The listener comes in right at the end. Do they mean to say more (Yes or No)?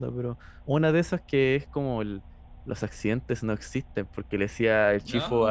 No